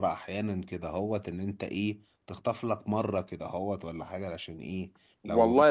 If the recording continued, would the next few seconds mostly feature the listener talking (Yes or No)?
Yes